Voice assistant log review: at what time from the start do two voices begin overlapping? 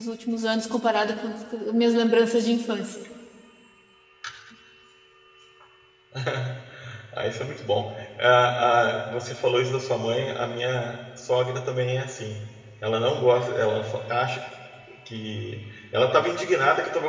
none

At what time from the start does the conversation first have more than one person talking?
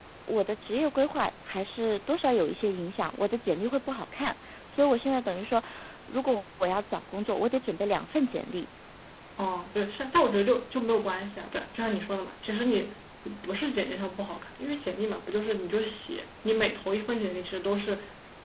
none

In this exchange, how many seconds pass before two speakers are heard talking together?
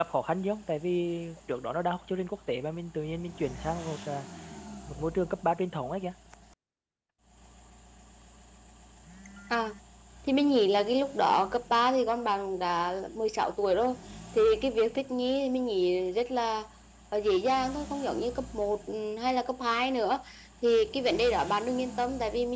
none

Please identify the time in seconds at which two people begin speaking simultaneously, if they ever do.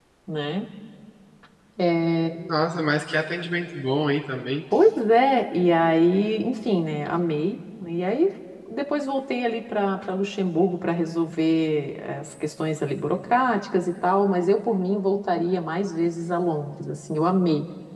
none

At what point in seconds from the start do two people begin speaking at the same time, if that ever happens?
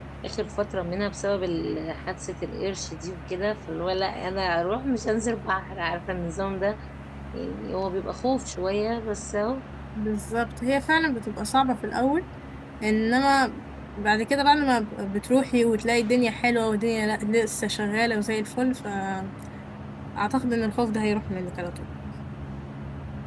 none

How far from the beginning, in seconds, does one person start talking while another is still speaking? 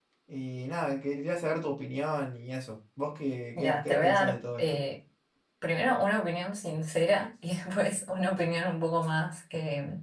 3.5 s

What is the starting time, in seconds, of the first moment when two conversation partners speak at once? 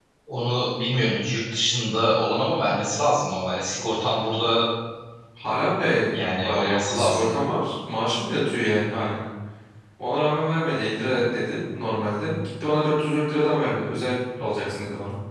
6.1 s

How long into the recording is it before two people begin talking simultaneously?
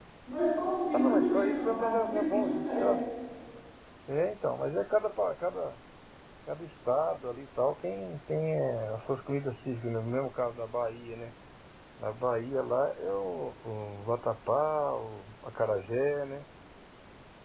0.9 s

